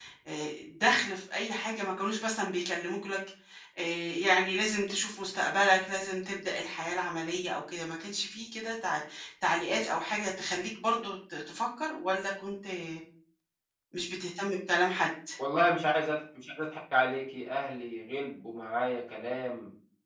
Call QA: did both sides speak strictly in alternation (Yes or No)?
Yes